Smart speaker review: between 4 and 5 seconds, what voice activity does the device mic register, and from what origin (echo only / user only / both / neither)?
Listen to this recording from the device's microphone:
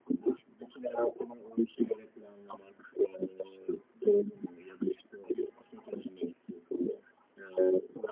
echo only